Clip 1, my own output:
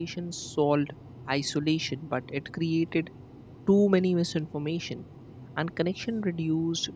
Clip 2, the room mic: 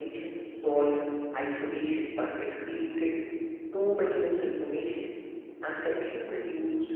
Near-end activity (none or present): none